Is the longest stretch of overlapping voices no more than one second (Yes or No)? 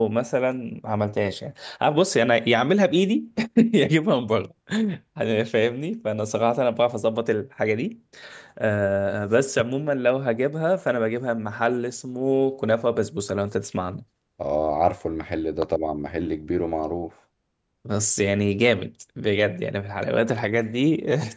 Yes